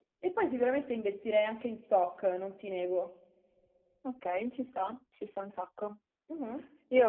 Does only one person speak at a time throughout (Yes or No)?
Yes